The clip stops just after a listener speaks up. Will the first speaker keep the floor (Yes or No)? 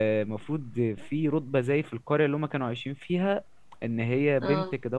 Yes